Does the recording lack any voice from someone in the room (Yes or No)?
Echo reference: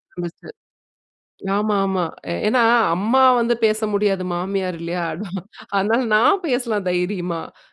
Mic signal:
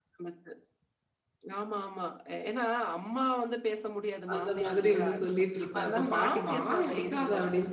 No